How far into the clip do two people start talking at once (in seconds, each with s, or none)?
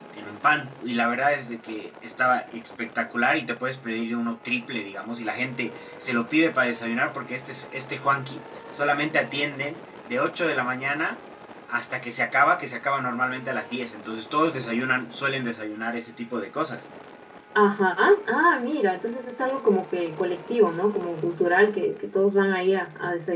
none